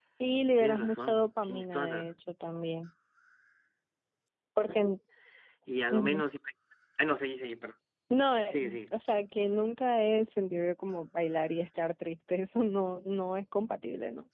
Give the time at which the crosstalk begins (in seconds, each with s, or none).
0.6 s